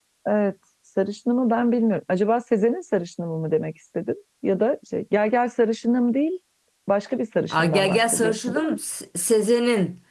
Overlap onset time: 8 s

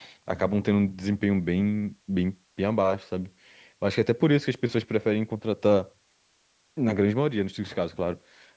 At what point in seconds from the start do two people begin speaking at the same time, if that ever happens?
none

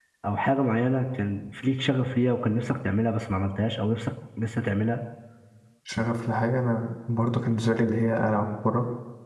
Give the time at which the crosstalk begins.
none

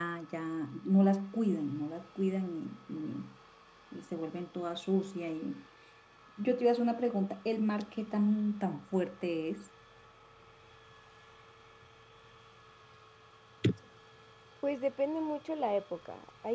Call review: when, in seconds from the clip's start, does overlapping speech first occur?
none

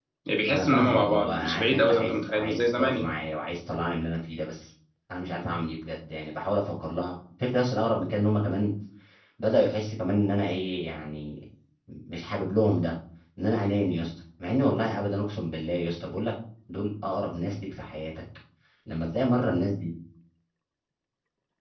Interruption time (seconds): 1 s

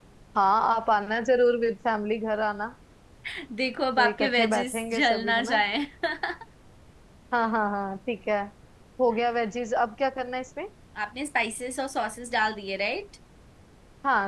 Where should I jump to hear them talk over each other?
4 s

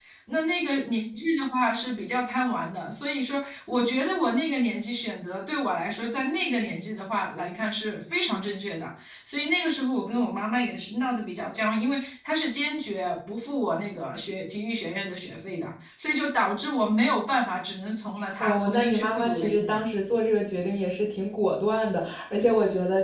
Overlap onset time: 18 s

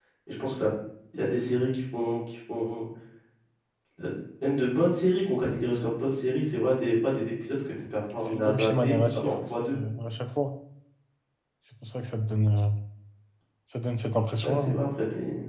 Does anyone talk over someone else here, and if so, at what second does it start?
8 s

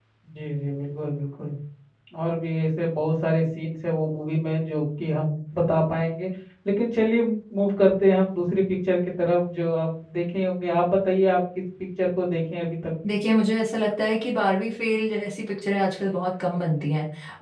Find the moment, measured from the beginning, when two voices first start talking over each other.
none

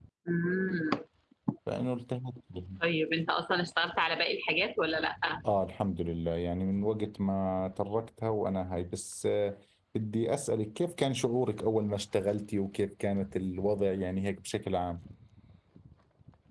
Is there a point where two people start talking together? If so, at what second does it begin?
none

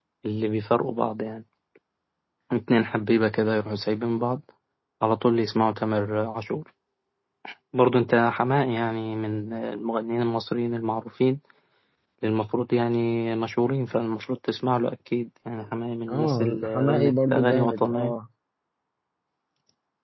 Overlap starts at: 16 s

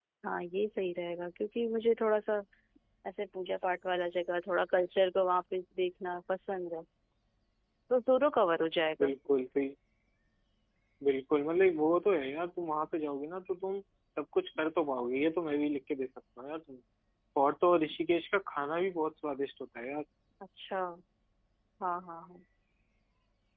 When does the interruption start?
none

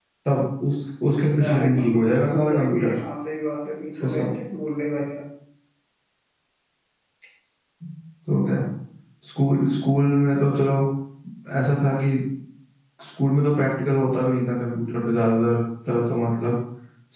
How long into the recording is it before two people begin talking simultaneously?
1 s

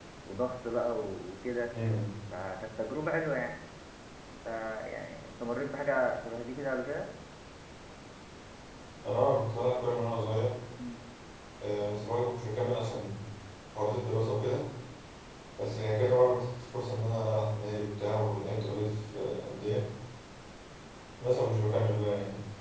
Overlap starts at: none

